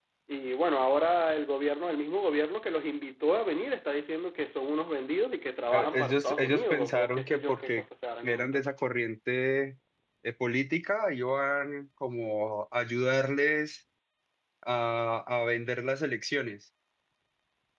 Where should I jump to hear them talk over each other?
5.7 s

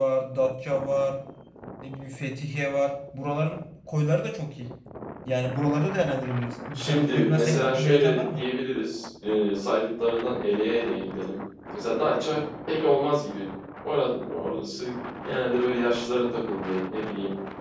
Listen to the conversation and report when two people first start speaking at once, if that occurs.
6.7 s

